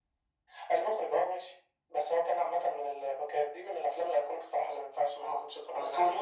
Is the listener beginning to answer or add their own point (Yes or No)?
Yes